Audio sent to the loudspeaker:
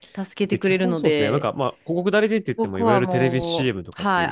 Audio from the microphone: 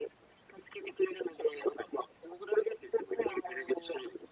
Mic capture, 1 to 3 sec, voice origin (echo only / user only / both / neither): echo only